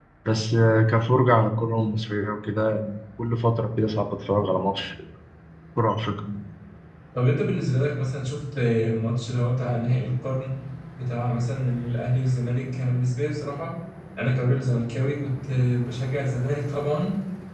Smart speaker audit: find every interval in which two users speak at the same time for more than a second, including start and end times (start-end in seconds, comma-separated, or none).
none